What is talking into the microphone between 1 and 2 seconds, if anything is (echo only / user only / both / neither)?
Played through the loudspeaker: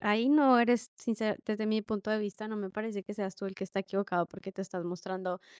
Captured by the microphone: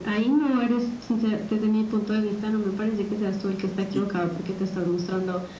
echo only